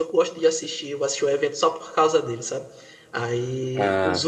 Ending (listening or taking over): listening